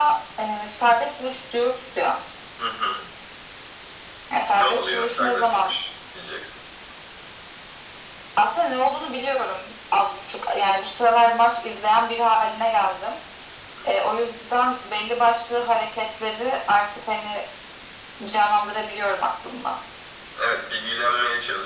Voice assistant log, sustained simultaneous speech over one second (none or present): present